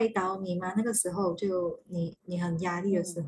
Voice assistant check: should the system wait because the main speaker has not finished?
No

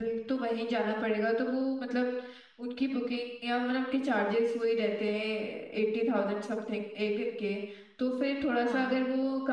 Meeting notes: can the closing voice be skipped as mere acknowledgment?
Yes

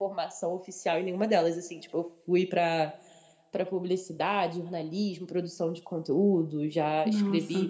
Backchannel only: Yes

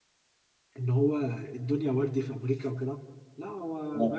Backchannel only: Yes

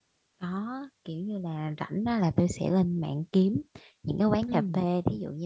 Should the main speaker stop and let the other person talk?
No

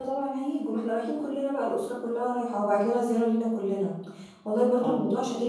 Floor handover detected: No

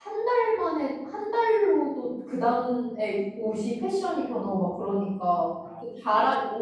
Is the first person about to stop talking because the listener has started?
No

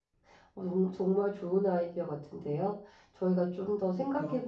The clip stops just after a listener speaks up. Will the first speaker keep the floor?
Yes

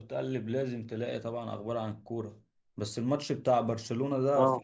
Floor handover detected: No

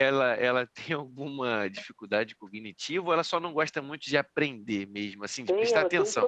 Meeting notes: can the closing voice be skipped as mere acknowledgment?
No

